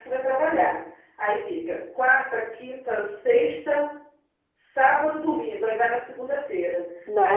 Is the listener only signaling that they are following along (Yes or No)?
Yes